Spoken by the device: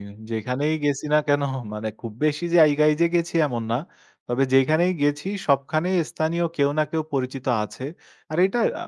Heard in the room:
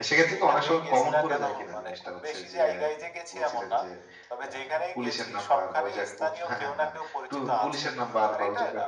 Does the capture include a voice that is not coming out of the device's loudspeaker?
Yes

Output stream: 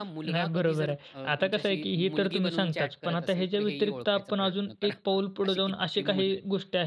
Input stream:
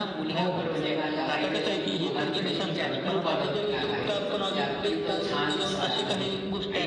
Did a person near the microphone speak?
Yes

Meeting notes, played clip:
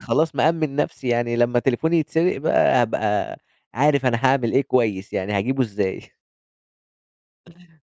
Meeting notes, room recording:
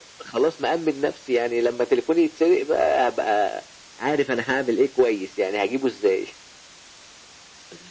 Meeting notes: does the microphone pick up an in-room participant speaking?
No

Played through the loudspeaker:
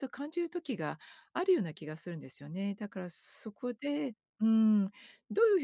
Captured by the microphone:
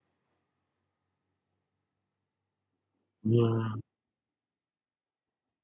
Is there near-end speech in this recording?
Yes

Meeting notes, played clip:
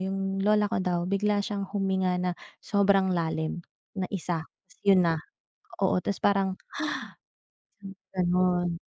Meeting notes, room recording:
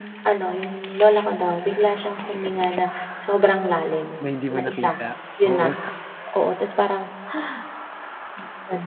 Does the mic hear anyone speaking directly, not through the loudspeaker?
Yes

